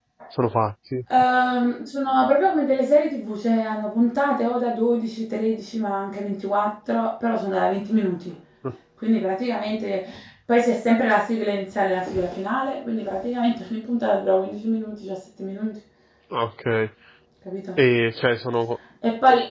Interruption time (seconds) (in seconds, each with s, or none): none